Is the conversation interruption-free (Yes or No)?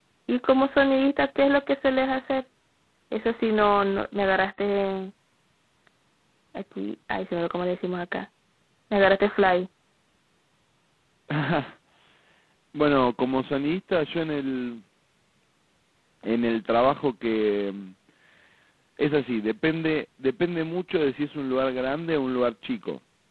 Yes